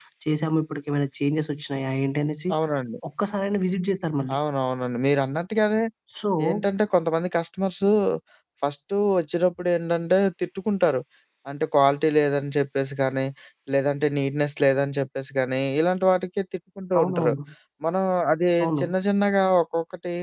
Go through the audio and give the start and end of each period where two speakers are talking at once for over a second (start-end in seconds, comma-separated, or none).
none